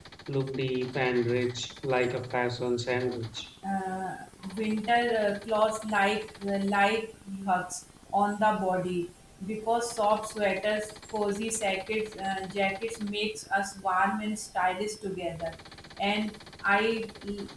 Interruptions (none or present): none